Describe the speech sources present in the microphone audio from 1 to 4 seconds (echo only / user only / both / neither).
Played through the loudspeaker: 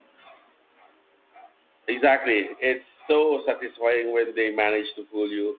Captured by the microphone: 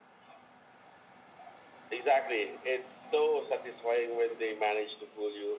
echo only